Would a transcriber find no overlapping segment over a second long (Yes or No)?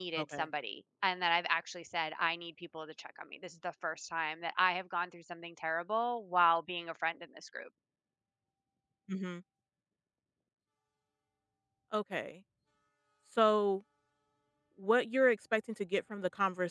Yes